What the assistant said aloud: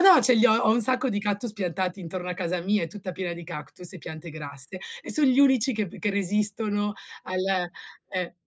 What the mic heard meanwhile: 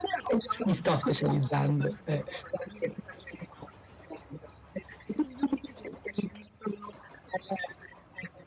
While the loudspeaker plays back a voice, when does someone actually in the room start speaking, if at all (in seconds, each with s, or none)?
0.6 s